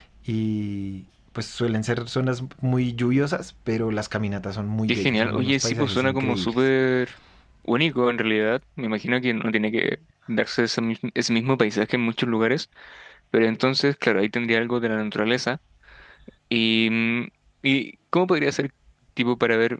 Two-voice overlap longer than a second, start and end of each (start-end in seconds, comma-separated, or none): 4.9-6.7